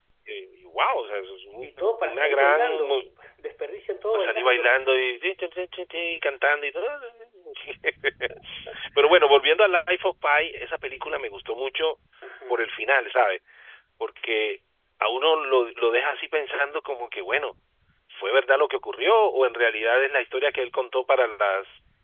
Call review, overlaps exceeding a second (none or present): present